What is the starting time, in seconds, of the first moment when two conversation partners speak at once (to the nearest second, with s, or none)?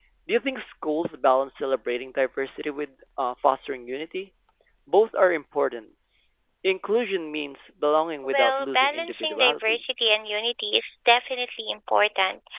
8 s